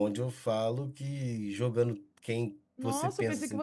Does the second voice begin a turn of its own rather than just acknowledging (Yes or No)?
Yes